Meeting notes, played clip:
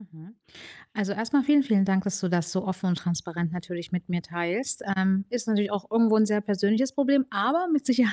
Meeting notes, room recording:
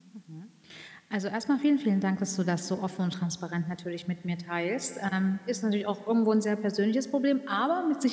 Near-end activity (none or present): none